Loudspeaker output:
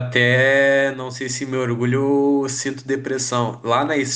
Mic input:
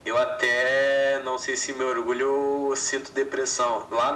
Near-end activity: none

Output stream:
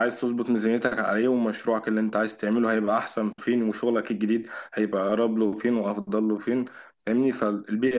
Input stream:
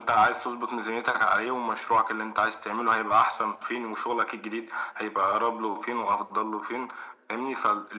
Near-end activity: none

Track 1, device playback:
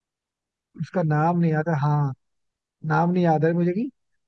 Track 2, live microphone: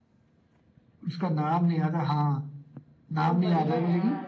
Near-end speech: present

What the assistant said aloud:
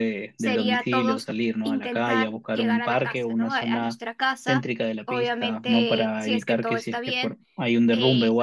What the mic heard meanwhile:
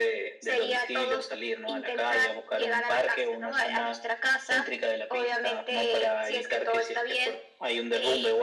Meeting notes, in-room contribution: none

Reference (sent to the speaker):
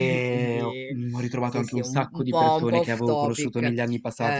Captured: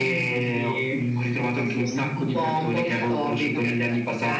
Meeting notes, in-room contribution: present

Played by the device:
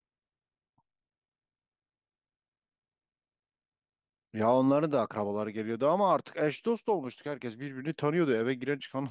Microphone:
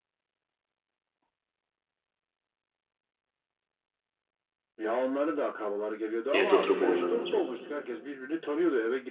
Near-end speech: present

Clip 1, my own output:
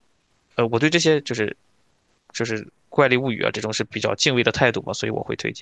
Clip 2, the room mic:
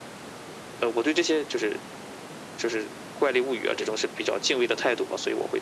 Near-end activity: none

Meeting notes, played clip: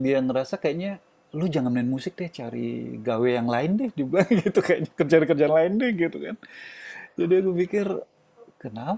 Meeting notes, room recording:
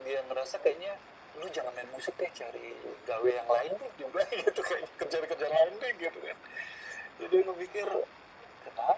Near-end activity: none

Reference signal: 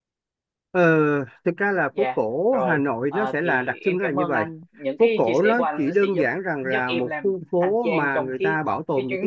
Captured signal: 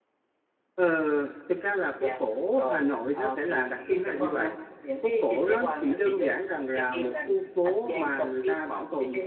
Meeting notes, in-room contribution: none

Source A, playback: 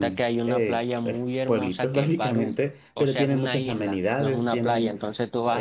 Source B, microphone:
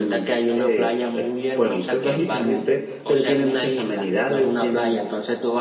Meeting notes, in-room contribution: none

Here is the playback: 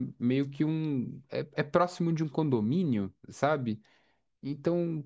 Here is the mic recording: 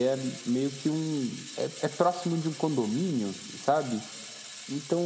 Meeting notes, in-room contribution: none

